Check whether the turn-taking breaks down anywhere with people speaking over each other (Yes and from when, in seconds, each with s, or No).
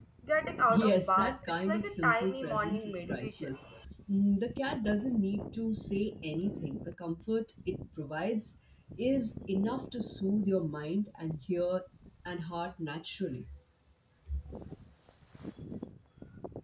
Yes, from 0.7 s